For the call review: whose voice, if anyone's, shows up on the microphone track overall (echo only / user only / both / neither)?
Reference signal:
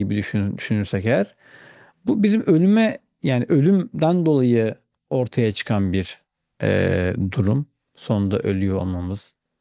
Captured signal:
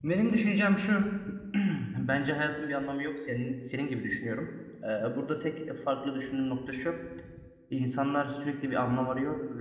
user only